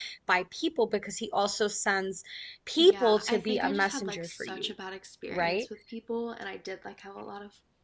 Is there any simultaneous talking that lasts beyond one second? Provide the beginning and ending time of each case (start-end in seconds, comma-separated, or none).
2.8-4.7